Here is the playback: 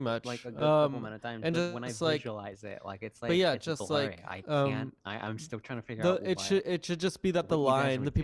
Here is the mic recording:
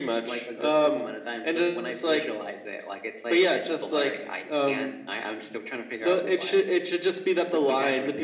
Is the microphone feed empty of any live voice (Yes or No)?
Yes